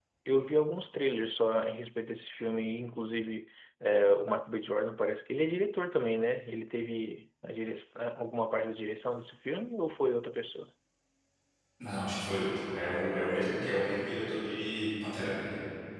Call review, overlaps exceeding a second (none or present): none